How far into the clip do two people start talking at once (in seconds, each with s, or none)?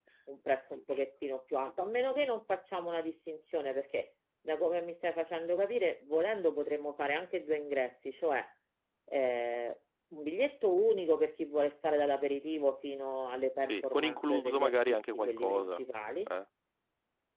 13.6 s